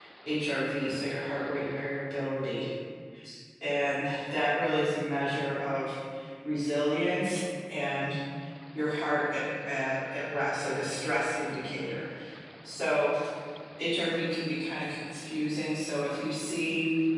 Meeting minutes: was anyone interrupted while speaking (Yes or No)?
No